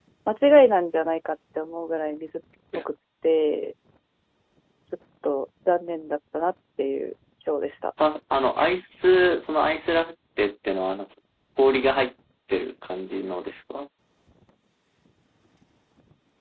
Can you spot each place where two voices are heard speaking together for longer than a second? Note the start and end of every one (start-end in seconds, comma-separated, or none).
none